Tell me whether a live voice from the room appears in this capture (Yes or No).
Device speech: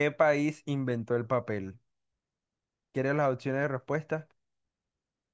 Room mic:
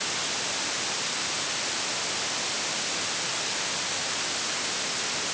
No